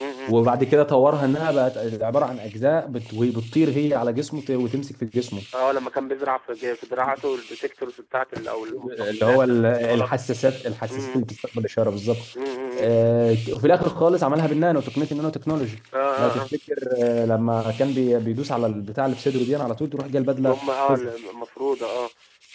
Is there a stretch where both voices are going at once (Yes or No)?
Yes